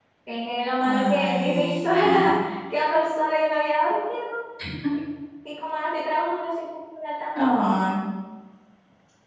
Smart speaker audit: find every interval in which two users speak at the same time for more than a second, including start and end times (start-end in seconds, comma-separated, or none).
0.8-2.5